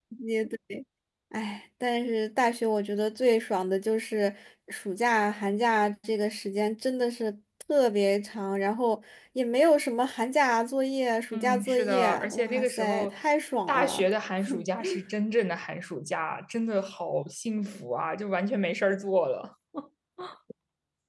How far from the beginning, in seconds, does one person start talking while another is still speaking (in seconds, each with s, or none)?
11.3 s